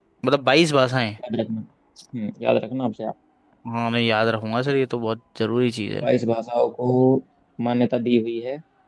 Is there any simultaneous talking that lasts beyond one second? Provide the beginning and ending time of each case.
none

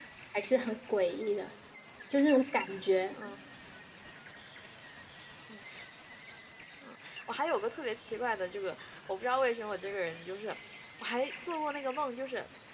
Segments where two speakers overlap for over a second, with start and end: none

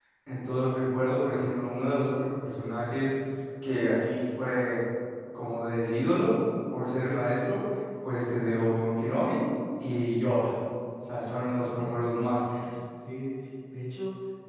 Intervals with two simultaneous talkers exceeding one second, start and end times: none

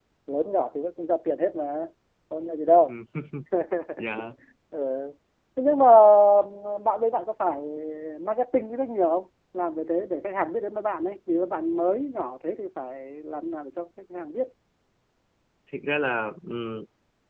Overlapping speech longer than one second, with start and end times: none

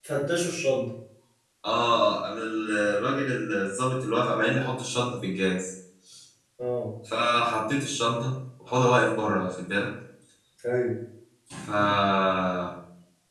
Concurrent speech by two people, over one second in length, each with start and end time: none

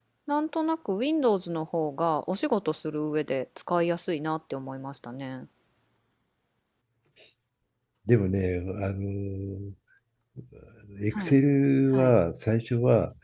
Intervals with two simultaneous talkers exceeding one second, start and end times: none

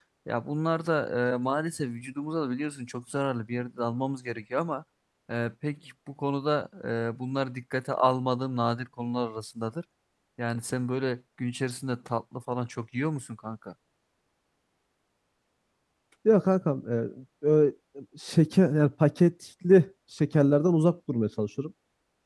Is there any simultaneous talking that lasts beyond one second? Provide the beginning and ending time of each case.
none

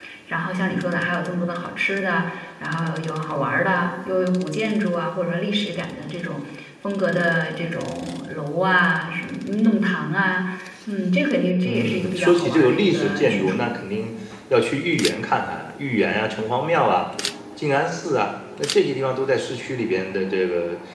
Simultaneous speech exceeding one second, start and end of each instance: 11.7-13.7

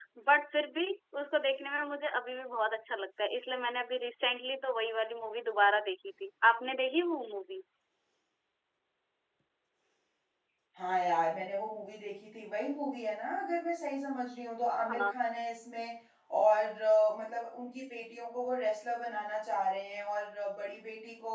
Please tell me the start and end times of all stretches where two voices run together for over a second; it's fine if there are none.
none

